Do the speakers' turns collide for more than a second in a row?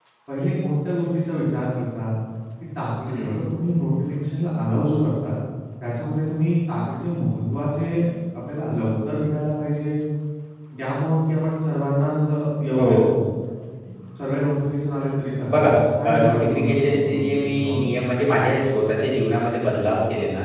Yes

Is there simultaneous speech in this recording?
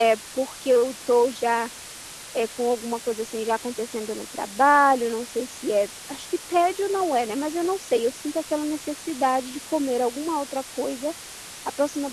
No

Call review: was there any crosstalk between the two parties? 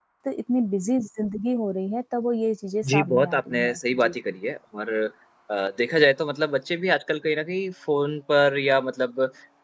Yes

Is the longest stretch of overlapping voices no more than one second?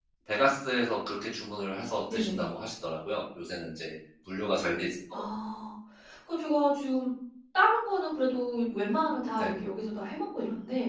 Yes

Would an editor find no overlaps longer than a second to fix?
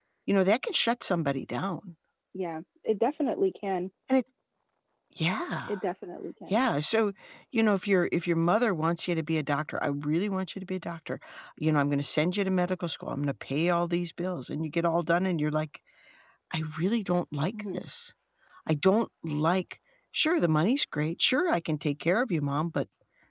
Yes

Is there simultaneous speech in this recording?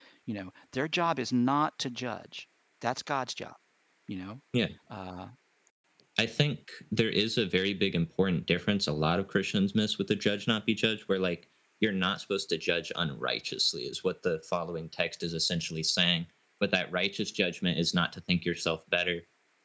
No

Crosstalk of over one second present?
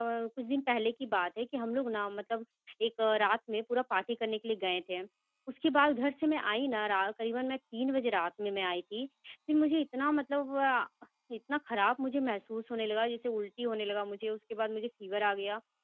No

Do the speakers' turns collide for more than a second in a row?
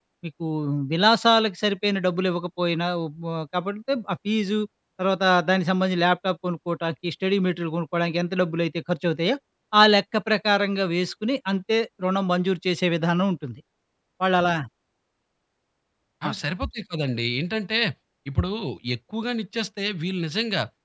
No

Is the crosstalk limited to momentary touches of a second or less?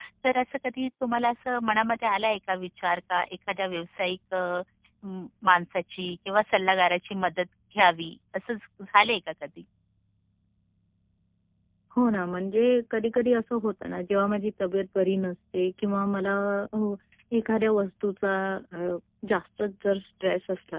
Yes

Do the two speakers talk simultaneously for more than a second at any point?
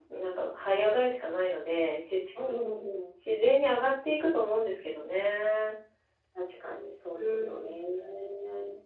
No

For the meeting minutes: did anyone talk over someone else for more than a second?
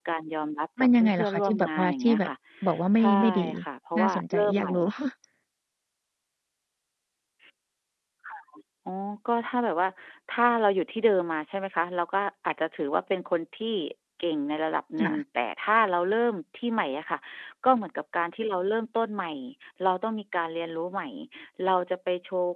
Yes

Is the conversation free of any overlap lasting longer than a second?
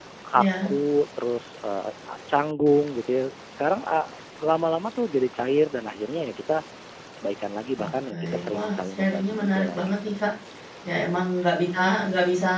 No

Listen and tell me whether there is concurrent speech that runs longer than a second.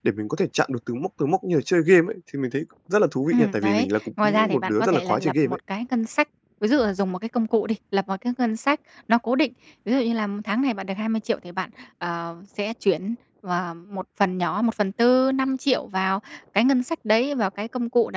Yes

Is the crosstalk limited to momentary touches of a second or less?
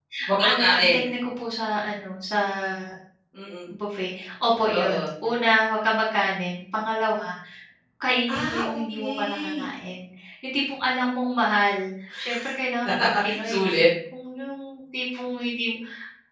No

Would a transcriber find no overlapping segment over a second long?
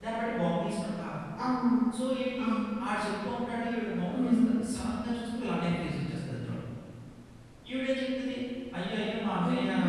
Yes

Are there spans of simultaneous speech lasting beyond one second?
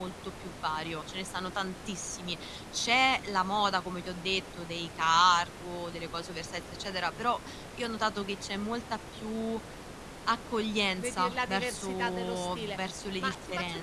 Yes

